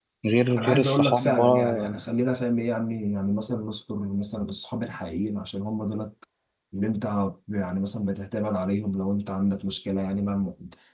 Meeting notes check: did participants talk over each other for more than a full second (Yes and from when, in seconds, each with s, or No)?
Yes, from 0.6 s